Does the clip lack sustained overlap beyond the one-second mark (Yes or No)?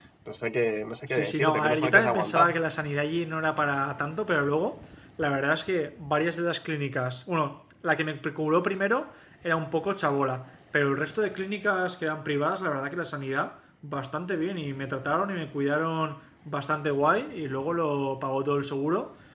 No